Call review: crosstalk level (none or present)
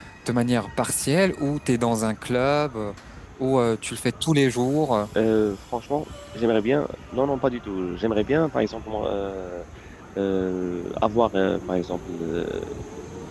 none